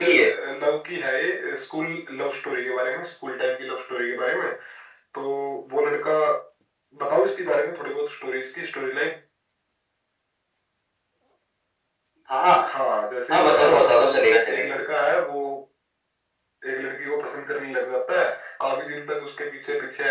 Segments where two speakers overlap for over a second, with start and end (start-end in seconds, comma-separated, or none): 13.3-14.6